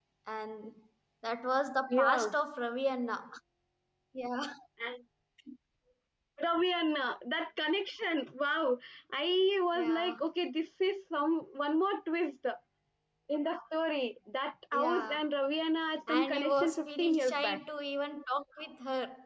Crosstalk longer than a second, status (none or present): present